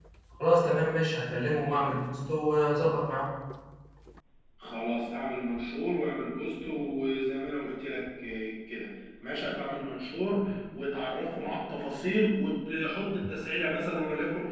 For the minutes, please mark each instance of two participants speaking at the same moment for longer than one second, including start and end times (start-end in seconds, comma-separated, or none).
none